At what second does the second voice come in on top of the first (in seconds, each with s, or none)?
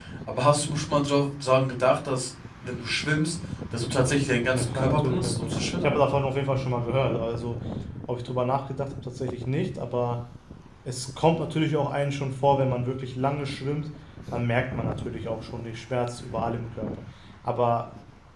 4.3 s